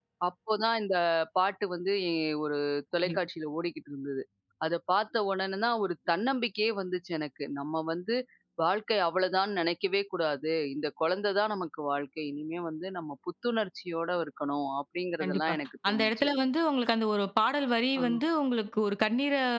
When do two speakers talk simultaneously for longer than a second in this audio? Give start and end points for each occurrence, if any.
none

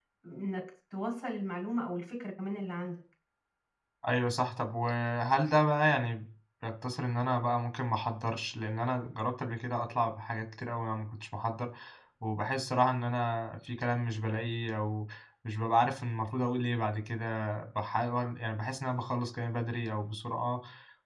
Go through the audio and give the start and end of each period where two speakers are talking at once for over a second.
none

